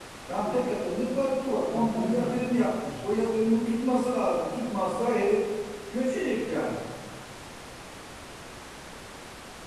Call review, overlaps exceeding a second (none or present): present